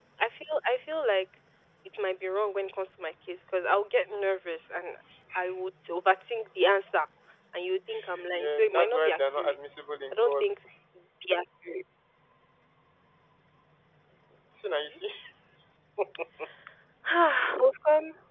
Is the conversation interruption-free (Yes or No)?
No